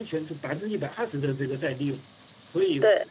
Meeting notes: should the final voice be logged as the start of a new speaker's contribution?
No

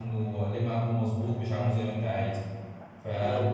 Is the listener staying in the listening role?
Yes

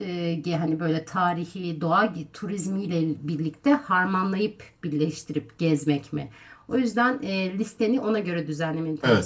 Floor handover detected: Yes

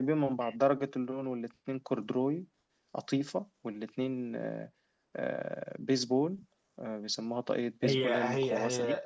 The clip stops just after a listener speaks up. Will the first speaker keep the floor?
No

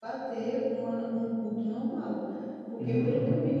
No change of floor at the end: Yes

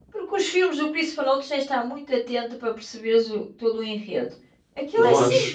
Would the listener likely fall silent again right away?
Yes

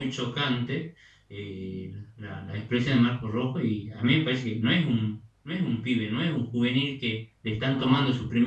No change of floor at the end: Yes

